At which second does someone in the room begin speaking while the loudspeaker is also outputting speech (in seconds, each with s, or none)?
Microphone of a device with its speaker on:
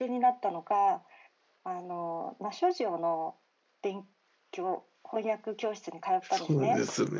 6.2 s